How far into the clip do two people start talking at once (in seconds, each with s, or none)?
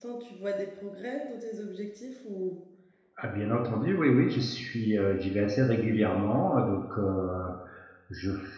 none